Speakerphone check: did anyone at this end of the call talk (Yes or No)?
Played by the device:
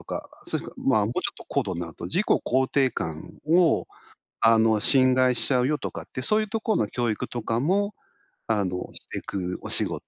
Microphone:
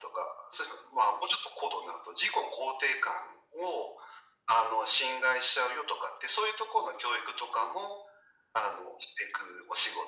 No